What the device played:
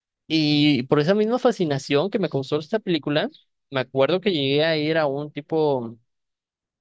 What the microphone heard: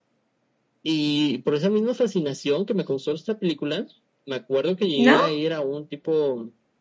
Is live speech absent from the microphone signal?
No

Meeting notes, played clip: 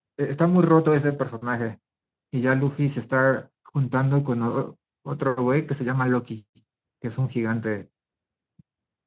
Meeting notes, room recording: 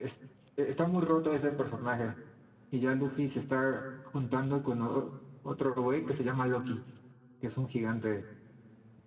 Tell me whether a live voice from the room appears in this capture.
No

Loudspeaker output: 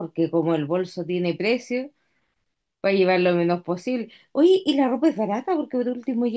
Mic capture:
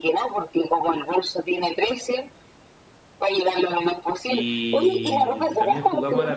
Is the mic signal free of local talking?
No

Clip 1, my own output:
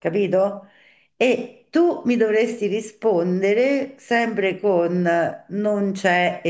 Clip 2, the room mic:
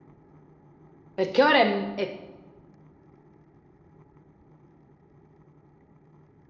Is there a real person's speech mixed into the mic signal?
Yes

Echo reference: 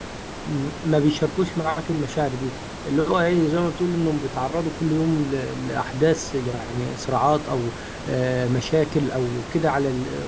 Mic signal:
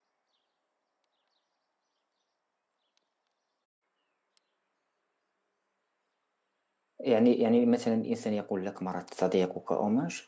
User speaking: Yes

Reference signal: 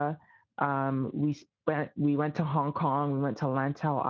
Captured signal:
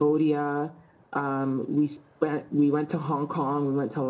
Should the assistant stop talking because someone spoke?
No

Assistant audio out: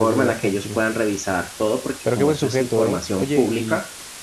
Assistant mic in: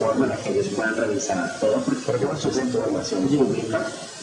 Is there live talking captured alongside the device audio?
No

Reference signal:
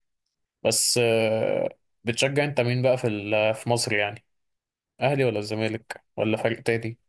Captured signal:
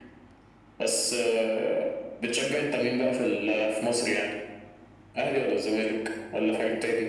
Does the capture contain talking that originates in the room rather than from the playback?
No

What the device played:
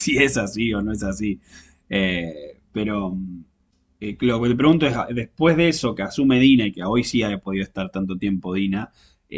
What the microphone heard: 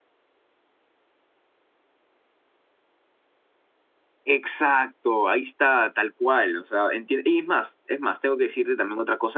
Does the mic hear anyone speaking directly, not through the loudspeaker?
Yes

